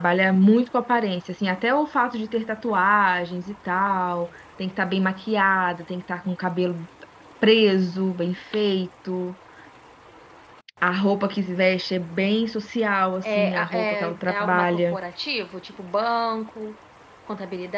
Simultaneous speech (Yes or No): Yes